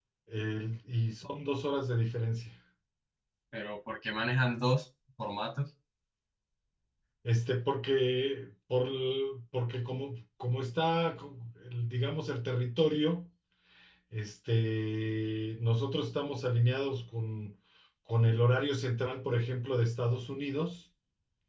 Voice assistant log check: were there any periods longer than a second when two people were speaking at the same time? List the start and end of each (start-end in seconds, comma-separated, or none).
none